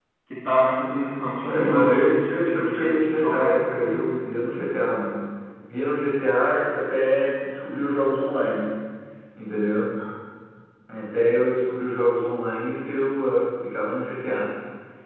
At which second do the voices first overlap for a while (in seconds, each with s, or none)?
1.4 s